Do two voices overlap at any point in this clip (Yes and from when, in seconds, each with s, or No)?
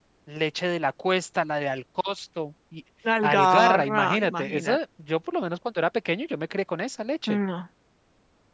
Yes, from 3.0 s